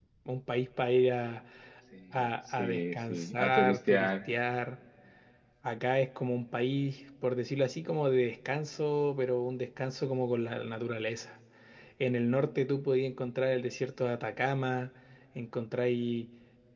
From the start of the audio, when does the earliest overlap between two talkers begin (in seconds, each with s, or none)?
2.2 s